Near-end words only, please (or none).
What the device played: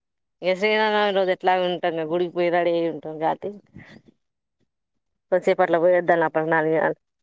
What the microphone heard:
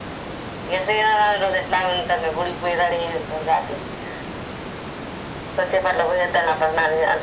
none